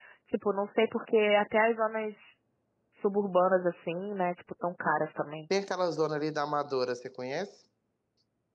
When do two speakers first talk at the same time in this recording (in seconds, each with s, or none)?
none